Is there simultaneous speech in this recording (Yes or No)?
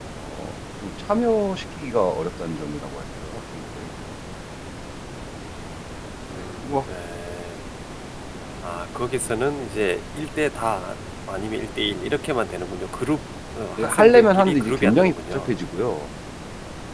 Yes